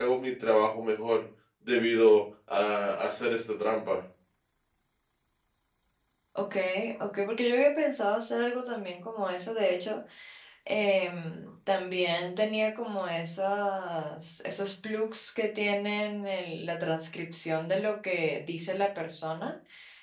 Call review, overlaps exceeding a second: none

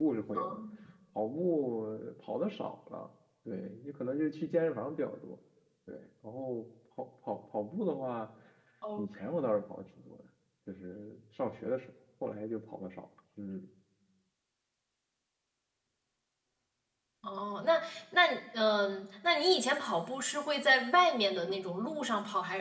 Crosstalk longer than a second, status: none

